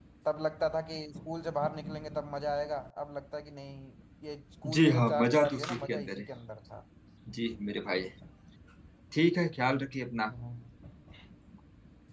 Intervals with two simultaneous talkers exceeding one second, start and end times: 4.7-6.3

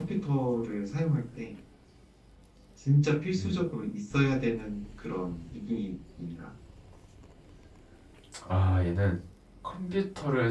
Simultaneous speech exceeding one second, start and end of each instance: none

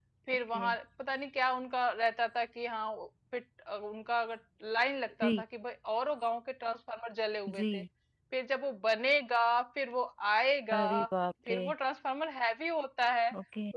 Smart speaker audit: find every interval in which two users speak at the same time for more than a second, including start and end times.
none

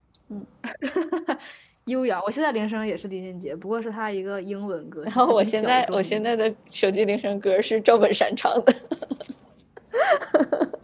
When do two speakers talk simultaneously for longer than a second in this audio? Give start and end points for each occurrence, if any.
5.0-6.3

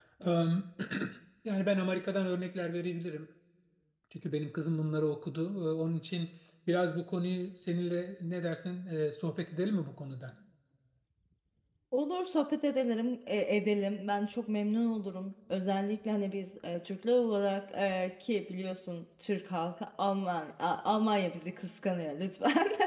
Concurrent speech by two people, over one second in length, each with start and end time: none

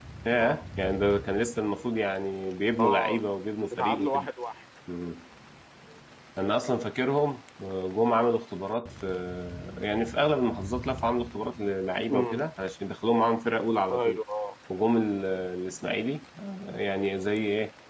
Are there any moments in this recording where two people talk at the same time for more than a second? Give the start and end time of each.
none

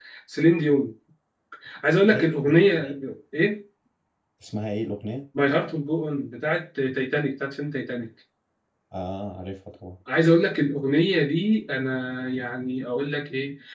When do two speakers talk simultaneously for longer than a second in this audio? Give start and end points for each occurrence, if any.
none

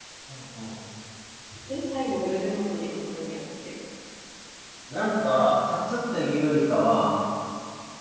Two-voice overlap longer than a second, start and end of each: none

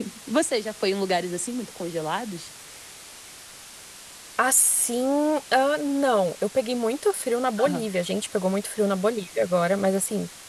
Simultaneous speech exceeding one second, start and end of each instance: none

